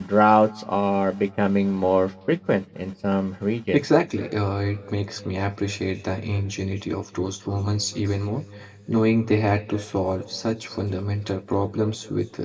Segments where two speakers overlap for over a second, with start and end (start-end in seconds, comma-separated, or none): none